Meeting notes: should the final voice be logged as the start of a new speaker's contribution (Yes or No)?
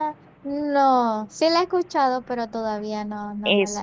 Yes